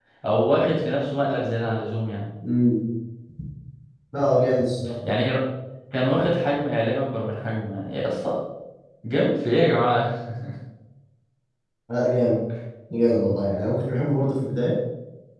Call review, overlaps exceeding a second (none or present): none